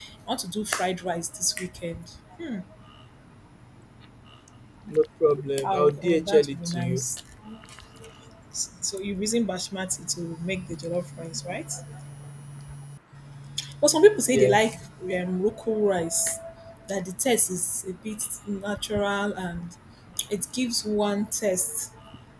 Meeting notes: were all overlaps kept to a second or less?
No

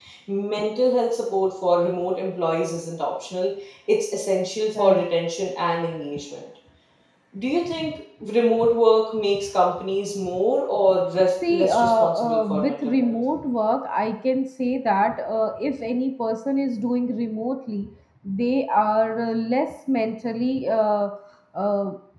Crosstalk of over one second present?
Yes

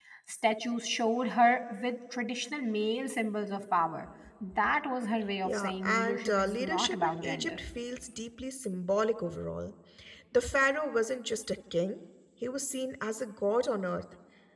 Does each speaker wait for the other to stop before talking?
No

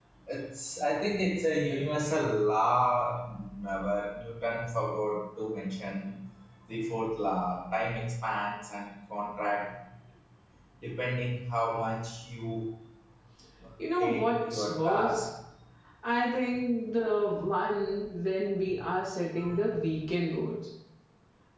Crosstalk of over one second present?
Yes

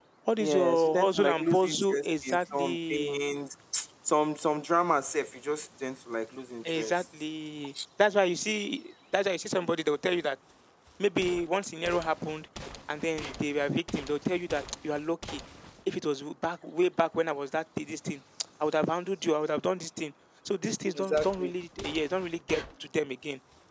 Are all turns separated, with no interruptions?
No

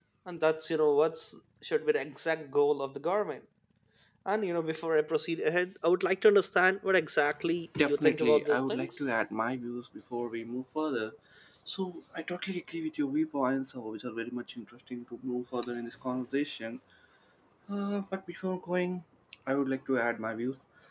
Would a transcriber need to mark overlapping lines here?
Yes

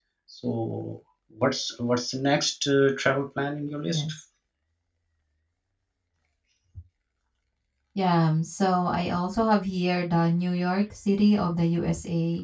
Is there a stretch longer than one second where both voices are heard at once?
No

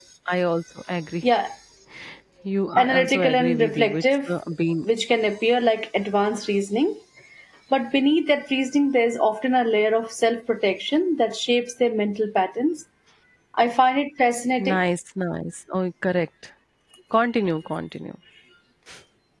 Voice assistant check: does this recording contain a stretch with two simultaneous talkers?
Yes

